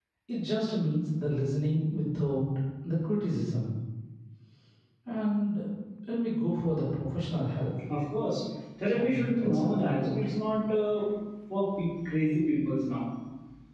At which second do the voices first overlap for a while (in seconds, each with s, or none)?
8.9 s